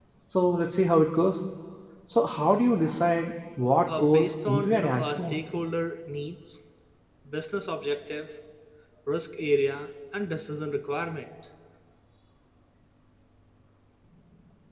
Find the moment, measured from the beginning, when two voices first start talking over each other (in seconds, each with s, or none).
3.9 s